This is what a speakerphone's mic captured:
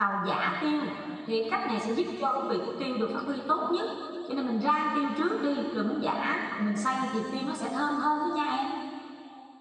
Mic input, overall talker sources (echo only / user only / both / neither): user only